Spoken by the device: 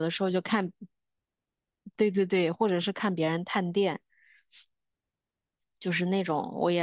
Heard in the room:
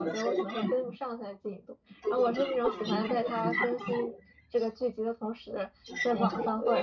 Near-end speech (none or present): present